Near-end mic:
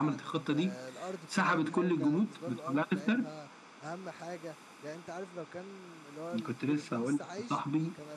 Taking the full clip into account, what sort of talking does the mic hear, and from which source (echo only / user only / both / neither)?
both